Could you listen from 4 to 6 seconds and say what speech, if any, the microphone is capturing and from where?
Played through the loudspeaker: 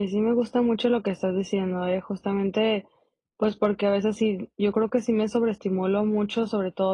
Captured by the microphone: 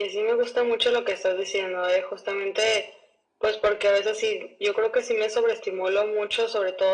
echo only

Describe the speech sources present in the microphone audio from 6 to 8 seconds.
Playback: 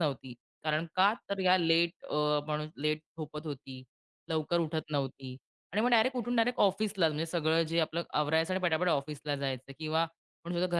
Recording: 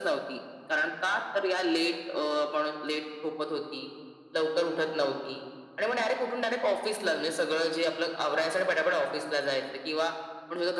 echo only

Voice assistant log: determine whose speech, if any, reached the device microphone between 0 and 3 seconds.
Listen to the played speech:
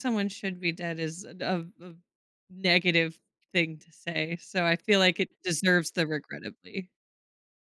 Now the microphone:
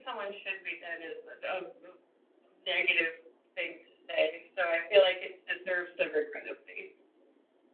echo only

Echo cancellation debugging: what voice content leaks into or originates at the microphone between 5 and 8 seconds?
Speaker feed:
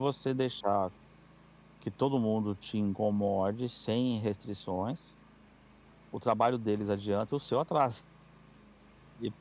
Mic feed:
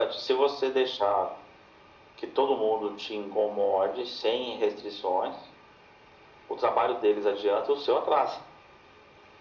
echo only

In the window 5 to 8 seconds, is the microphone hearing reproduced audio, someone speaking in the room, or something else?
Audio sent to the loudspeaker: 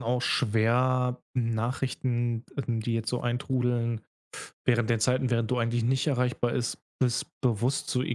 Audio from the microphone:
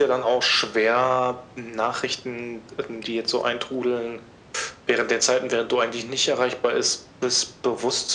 echo only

